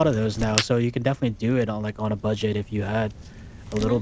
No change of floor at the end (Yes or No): No